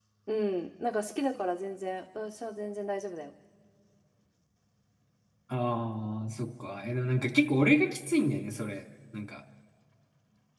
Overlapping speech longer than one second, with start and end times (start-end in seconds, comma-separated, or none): none